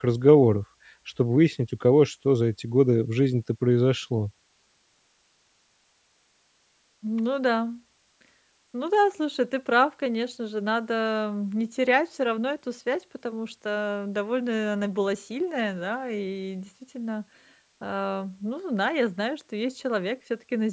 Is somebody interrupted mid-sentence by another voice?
No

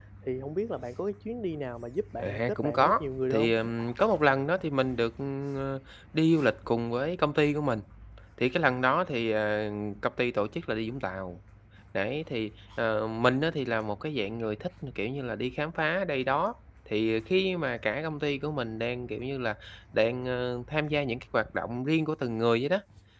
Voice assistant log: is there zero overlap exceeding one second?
No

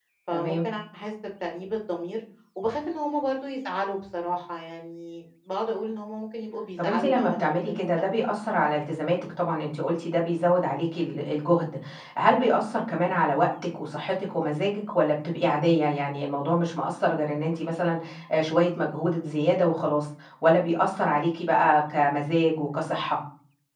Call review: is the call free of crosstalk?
No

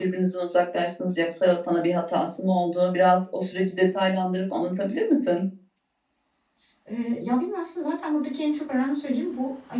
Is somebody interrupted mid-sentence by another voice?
No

